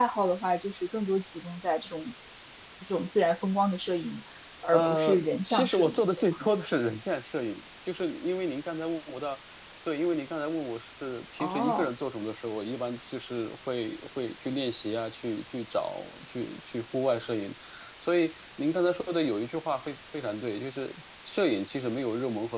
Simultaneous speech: Yes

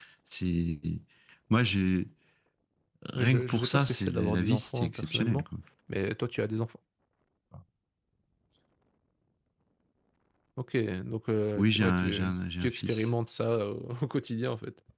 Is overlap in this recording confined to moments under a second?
No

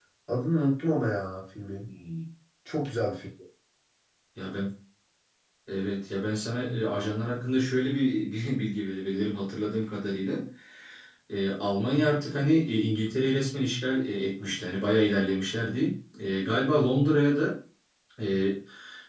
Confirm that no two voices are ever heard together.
Yes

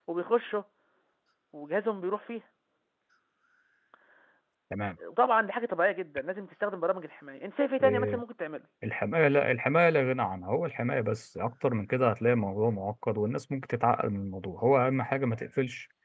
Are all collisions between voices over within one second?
Yes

